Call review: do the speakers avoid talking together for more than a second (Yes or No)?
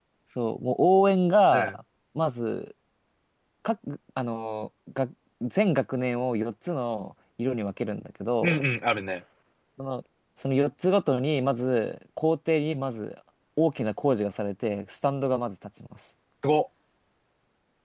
Yes